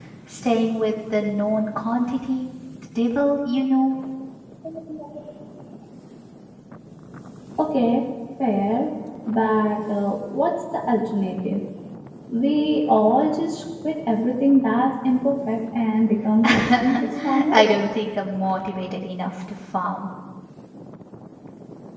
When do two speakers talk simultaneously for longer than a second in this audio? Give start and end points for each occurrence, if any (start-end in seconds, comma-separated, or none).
16.4-17.8